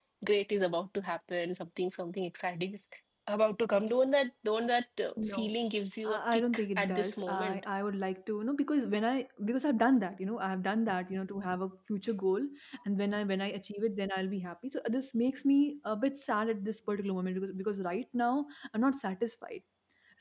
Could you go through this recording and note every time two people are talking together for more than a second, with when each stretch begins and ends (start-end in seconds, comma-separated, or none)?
6.0-7.6